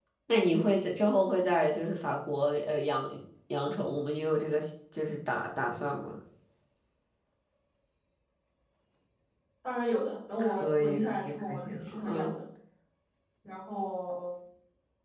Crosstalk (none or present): present